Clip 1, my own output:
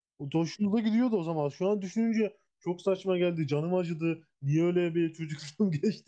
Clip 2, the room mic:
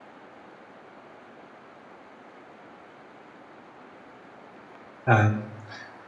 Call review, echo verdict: none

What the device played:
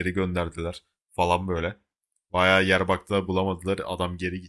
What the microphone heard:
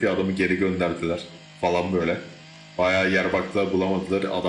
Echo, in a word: present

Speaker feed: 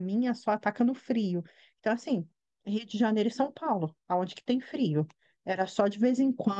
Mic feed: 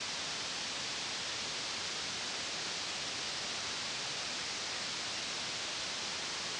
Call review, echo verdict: none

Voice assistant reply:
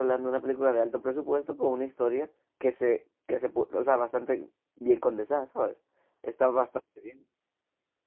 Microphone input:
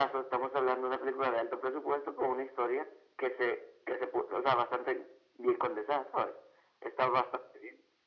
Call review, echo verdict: present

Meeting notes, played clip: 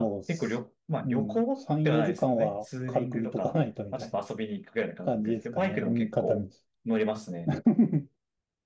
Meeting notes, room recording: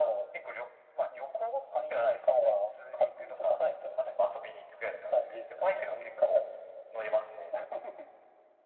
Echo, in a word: present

